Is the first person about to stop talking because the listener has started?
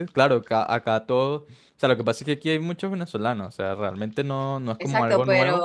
Yes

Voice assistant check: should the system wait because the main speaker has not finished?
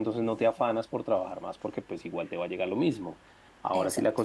Yes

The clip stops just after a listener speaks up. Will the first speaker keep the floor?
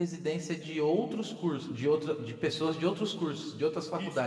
No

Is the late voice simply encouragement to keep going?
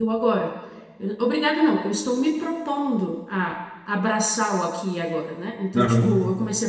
Yes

